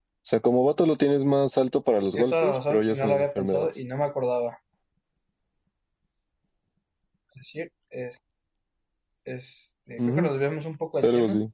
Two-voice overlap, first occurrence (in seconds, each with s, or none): 2.2 s